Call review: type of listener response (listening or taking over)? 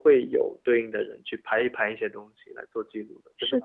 taking over